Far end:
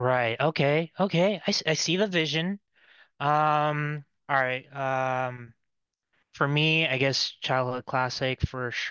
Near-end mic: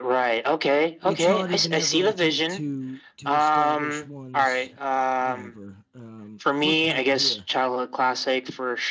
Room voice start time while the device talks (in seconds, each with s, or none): 1.0 s